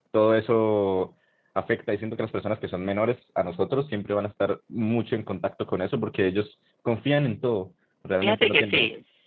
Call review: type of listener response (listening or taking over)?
taking over